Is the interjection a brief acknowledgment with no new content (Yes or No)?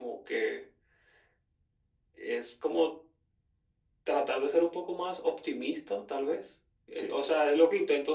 Yes